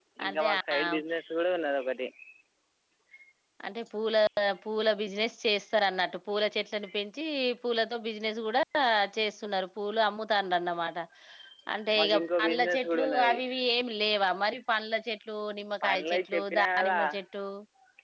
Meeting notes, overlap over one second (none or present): present